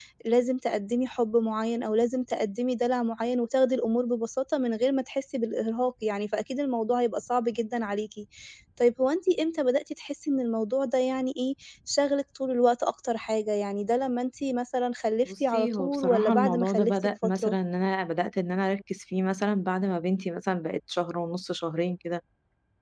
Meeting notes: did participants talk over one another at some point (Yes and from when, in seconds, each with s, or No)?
Yes, from 15.2 s